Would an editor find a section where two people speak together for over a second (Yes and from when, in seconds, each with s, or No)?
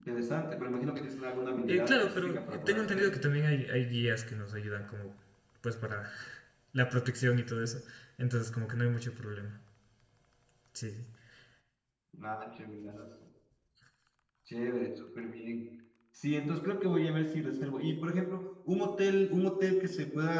Yes, from 1.7 s